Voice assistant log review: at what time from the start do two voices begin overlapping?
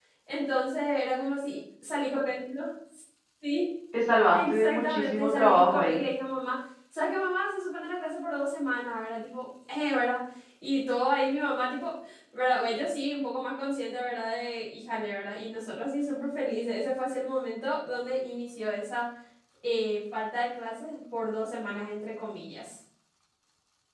4 s

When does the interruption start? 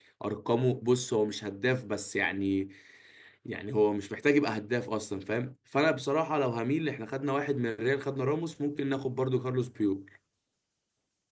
none

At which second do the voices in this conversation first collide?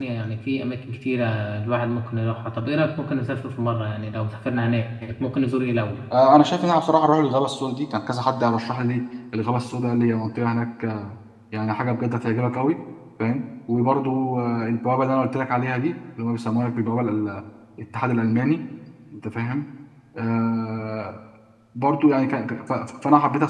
none

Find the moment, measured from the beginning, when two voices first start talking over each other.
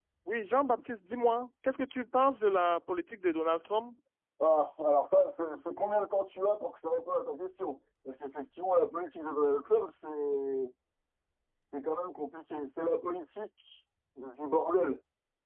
none

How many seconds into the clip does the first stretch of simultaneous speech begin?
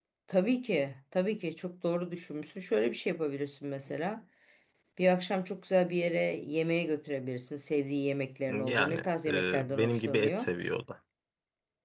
8 s

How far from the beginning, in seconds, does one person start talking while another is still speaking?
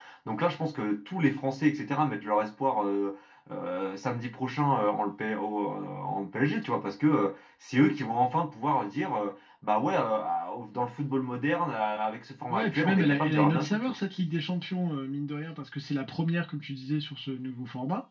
12 s

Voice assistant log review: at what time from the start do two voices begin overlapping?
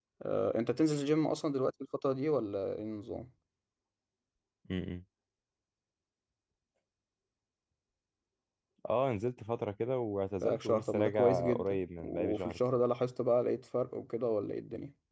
10 s

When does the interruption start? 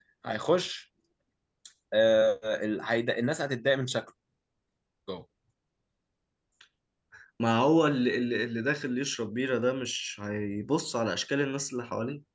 none

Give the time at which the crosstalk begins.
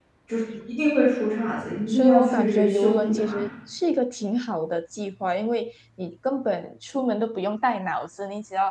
2 s

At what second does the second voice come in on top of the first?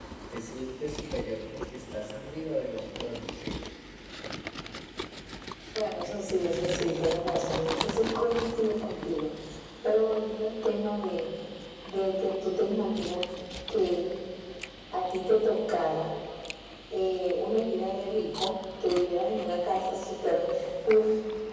none

